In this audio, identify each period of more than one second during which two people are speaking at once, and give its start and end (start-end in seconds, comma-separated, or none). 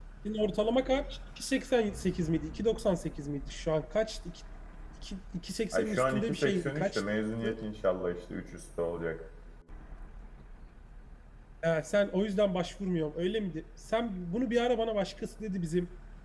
5.7-7.0